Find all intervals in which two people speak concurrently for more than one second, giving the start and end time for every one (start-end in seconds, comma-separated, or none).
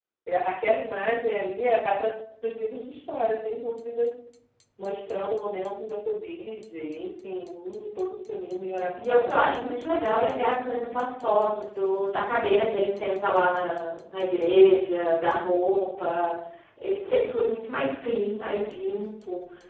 8.9-10.5